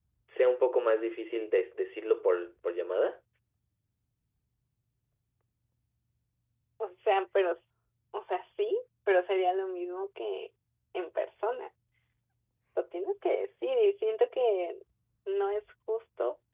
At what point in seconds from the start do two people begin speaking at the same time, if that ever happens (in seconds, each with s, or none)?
none